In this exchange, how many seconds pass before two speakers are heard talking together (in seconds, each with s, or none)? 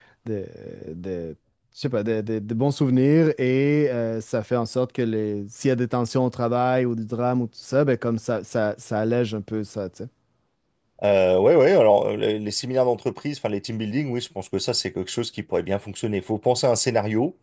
none